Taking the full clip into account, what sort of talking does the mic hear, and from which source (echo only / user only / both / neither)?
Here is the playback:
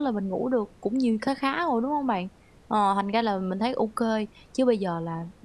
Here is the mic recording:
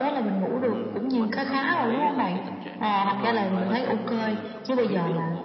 both